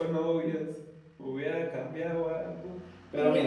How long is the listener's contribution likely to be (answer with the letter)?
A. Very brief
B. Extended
A